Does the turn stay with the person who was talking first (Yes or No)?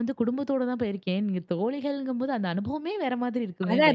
No